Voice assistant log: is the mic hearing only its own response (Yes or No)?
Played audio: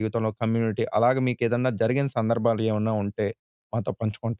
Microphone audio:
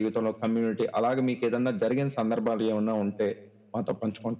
Yes